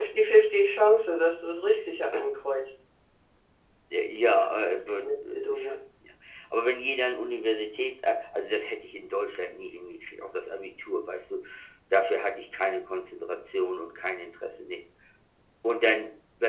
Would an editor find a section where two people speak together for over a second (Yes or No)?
Yes